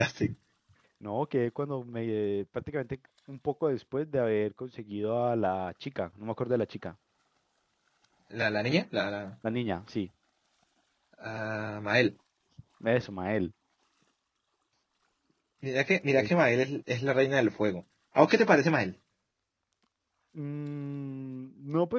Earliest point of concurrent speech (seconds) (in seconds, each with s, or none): none